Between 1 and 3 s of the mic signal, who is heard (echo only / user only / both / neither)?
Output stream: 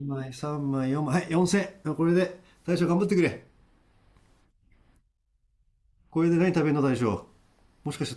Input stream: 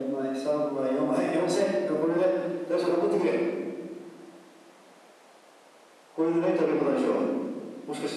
echo only